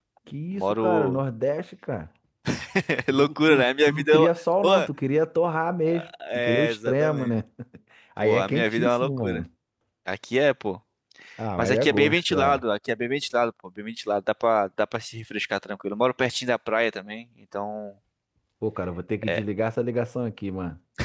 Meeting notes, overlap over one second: present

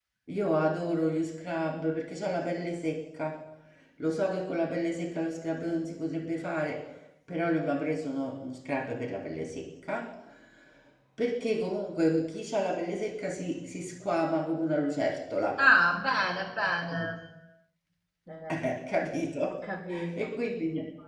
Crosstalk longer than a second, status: none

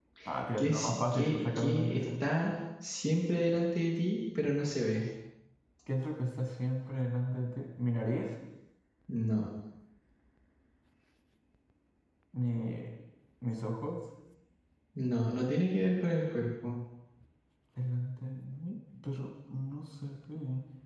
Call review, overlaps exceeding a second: present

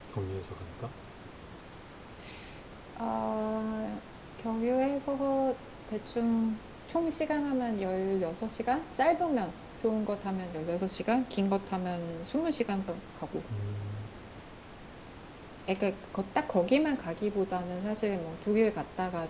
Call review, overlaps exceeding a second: none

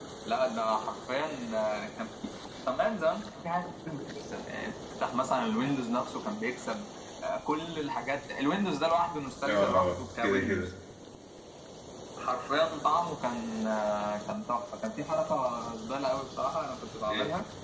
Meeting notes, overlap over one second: present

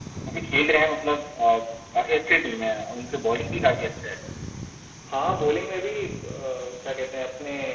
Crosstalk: none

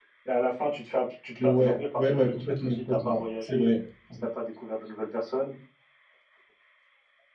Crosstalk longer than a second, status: present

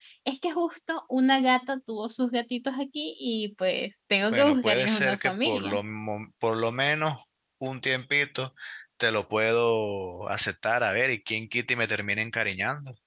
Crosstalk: present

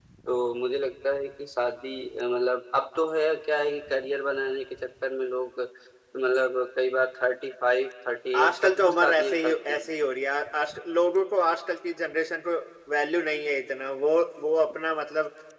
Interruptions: present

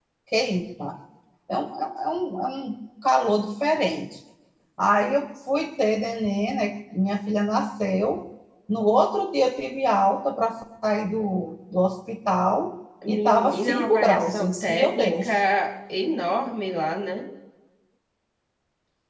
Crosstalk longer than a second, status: present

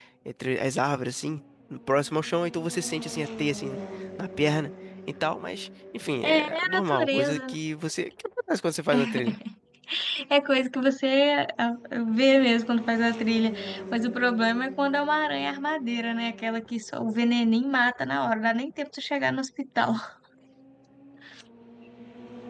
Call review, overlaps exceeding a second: present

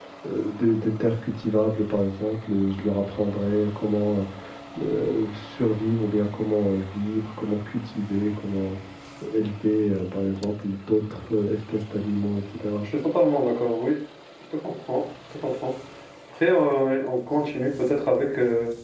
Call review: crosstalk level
none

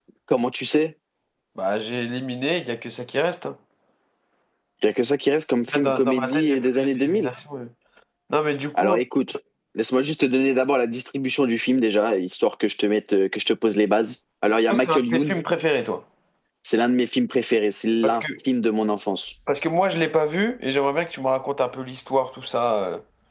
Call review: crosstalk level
present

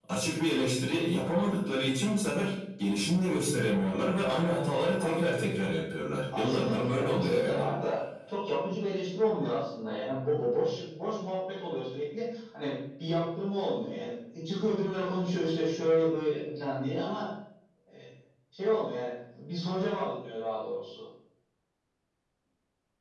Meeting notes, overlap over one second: present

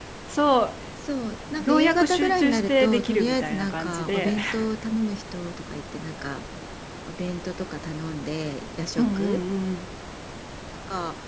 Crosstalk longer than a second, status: present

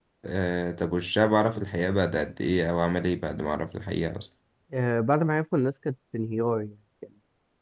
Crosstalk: none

